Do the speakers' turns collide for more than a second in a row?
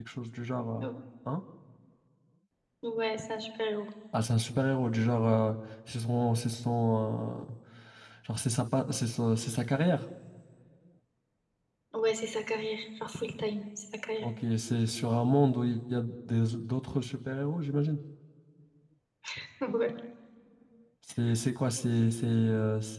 No

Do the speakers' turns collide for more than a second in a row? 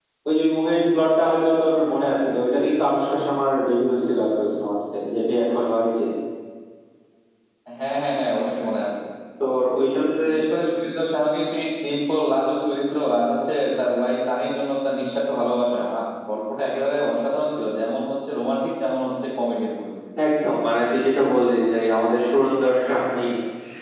No

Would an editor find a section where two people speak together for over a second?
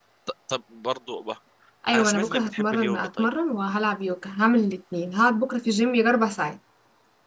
Yes, from 1.9 s

